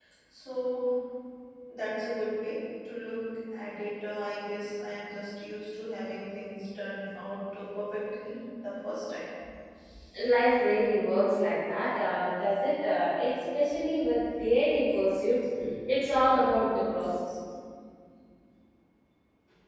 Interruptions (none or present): none